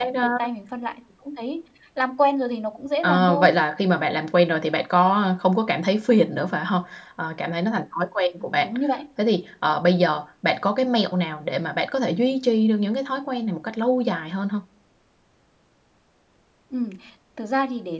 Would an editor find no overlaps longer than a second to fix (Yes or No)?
Yes